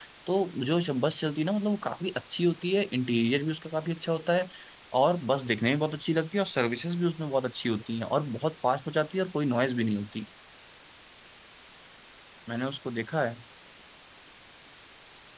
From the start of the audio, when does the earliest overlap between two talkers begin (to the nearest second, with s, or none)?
none